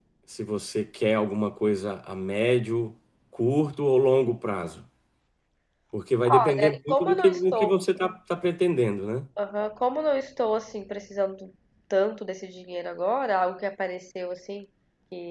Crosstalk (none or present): present